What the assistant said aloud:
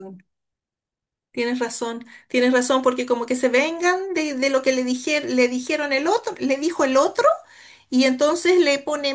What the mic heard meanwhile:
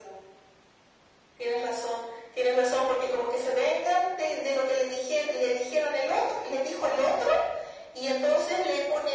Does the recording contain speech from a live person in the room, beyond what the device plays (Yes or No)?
No